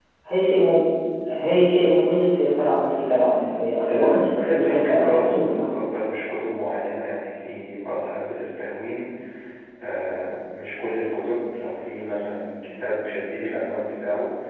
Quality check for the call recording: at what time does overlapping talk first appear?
3.8 s

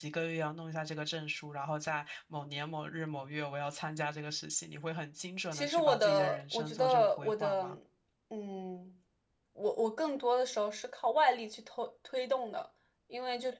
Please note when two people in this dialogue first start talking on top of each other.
5.5 s

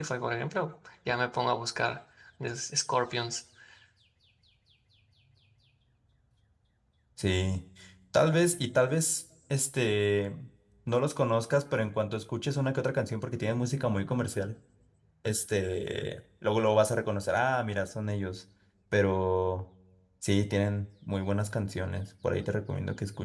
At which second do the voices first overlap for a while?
none

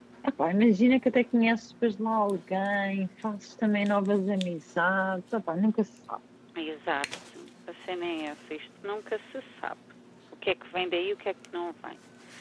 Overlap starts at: none

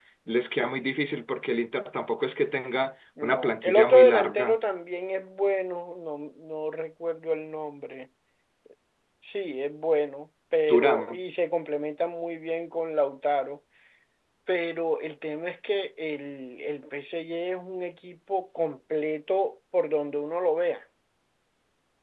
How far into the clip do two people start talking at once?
3.2 s

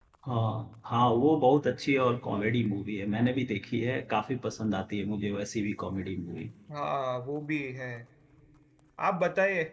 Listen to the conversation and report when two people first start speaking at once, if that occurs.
none

